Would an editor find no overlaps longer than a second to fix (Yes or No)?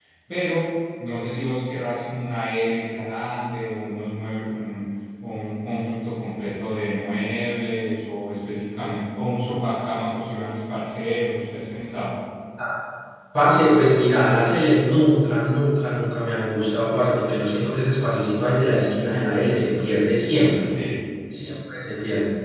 Yes